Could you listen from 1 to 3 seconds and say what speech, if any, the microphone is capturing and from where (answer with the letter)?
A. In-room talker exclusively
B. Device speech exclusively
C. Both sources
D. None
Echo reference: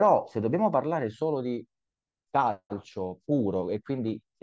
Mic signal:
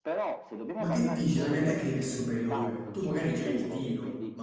C